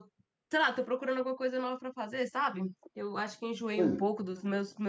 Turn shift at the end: No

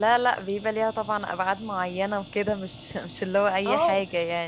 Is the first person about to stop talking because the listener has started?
Yes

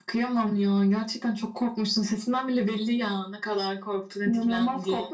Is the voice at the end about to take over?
Yes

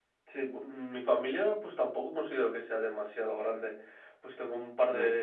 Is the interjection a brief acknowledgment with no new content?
Yes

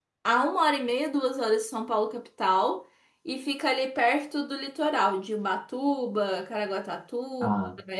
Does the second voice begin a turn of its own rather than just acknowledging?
No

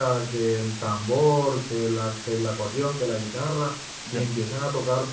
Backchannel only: Yes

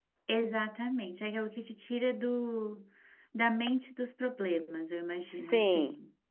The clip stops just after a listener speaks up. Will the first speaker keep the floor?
No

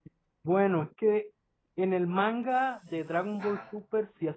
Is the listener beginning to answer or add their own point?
No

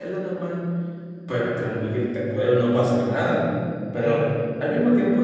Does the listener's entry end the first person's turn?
No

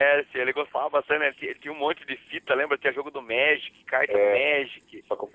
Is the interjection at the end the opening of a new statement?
Yes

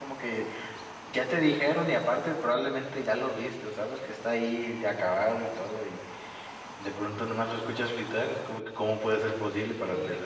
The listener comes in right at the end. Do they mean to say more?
Yes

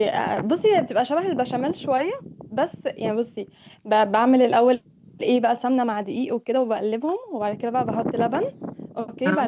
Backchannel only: Yes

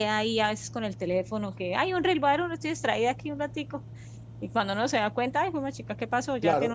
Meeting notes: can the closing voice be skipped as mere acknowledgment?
No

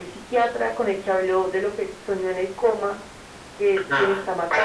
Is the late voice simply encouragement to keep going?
No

